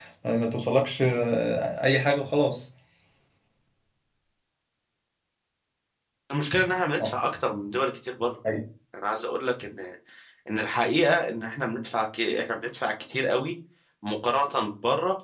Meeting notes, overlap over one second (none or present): none